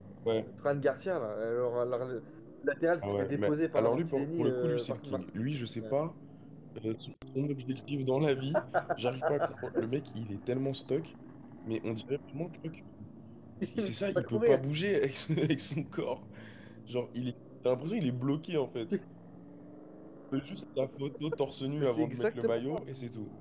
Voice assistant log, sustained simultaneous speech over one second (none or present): present